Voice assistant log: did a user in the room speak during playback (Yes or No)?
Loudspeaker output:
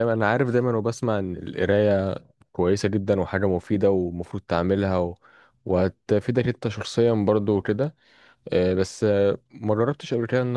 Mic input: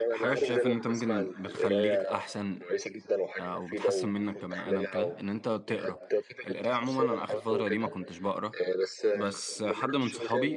Yes